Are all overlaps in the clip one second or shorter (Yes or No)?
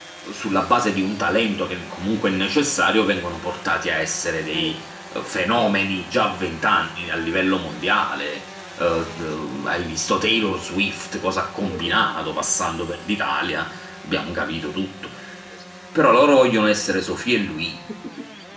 Yes